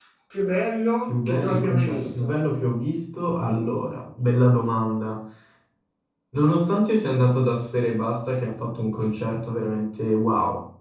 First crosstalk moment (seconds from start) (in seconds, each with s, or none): 1.1 s